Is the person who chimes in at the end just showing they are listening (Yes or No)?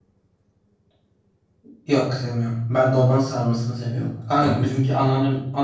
Yes